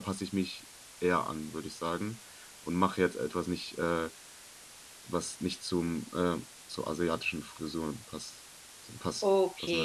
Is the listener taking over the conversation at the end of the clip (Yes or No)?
Yes